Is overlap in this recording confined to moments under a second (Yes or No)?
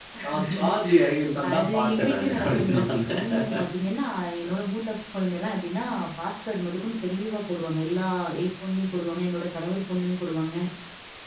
No